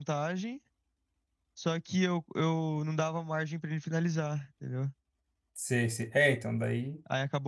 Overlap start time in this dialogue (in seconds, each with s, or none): none